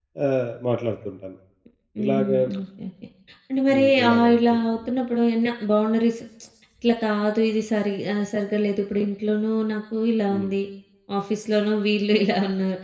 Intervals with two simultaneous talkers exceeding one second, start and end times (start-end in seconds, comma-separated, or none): 3.7-4.9